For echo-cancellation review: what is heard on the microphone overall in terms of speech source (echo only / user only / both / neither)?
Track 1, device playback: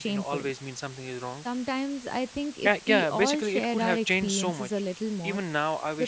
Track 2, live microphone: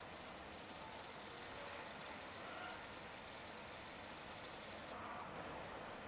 neither